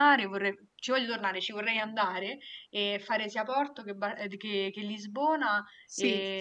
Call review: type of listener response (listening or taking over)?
listening